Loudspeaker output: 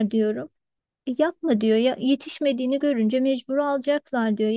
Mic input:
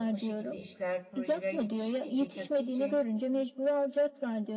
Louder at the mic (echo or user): echo